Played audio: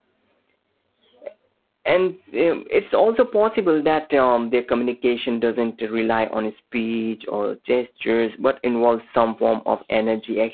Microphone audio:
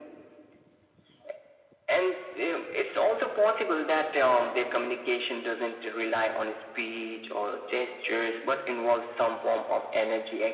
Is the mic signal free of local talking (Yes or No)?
Yes